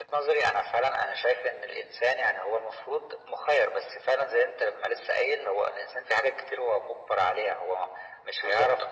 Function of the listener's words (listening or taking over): listening